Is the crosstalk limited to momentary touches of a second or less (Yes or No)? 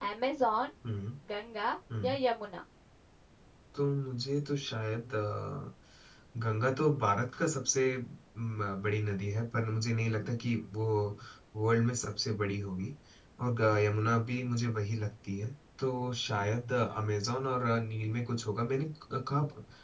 Yes